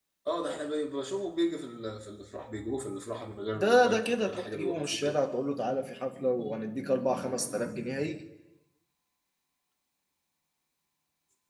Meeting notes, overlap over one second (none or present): present